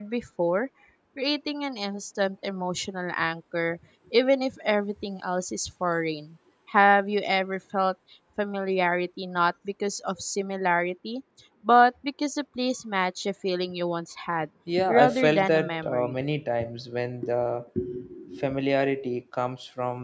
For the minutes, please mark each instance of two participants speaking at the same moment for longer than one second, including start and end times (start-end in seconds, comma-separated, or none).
14.9-16.2